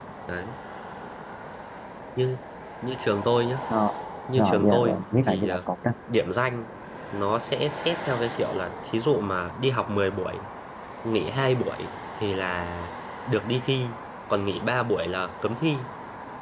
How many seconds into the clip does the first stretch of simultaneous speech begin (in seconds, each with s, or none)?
4.3 s